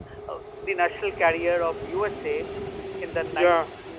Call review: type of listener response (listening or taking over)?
listening